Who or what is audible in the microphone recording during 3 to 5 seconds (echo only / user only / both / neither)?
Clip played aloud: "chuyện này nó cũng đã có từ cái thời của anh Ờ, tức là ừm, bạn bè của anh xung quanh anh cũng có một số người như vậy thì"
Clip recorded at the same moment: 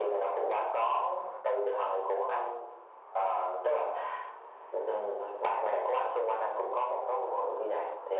echo only